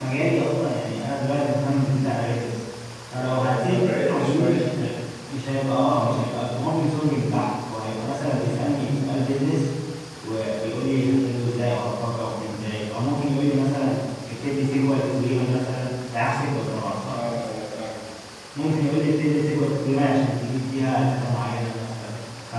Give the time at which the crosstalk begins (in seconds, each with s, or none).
3.2 s